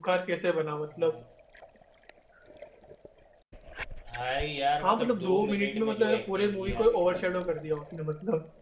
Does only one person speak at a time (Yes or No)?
No